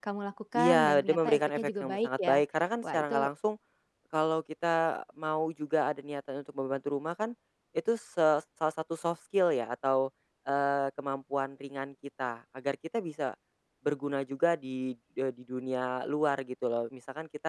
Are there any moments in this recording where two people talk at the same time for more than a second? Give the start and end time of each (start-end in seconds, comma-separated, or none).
0.6-2.4